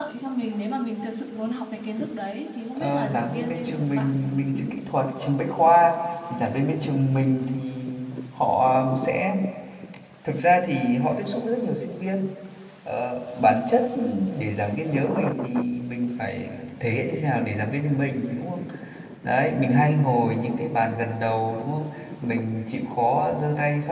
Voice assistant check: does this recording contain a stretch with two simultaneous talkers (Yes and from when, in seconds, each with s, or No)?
Yes, from 2.8 s